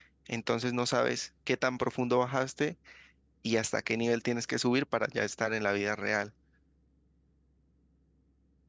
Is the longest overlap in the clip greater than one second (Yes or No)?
No